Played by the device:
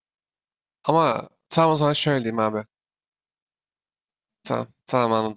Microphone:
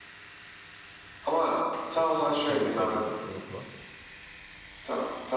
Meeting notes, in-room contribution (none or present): present